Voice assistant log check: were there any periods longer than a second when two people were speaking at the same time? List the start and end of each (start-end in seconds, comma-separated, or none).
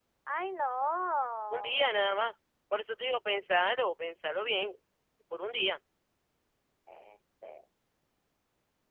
none